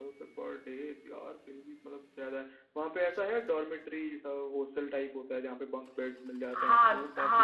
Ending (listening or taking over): taking over